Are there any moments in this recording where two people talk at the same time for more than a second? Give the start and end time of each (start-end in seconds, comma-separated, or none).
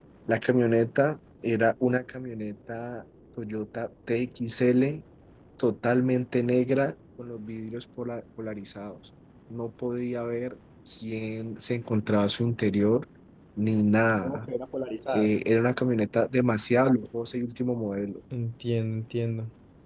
none